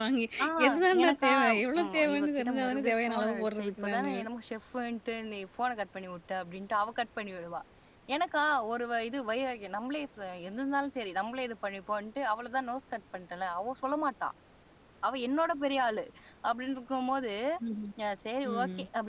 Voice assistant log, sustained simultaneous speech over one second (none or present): present